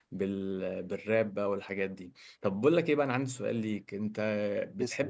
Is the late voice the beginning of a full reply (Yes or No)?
No